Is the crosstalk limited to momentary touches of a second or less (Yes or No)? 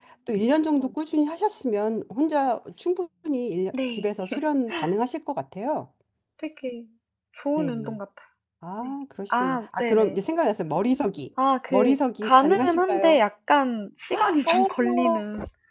No